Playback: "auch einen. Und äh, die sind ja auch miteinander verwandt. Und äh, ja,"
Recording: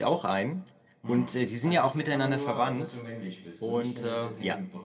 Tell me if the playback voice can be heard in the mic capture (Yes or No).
Yes